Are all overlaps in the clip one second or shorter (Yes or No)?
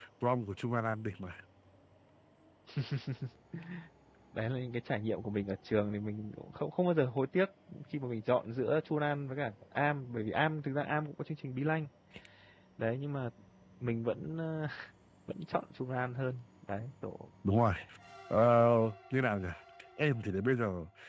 Yes